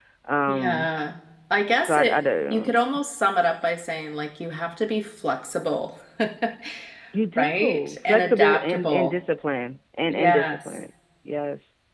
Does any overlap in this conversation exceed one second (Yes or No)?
Yes